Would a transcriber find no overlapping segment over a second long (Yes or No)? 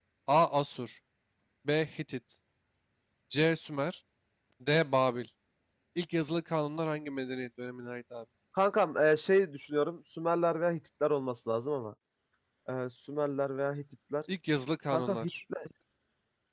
Yes